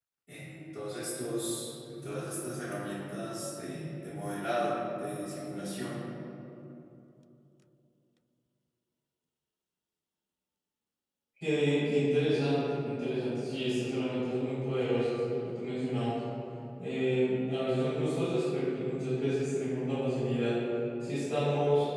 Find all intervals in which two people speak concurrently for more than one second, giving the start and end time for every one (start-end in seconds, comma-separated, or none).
none